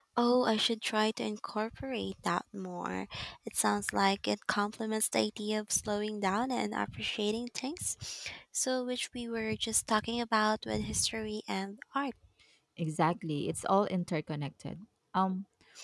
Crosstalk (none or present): none